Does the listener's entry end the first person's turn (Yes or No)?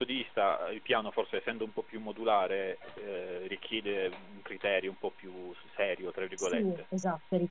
Yes